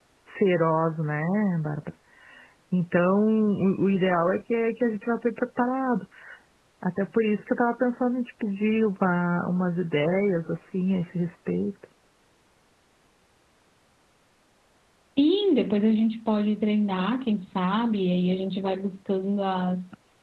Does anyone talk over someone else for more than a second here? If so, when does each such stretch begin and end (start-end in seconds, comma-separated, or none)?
none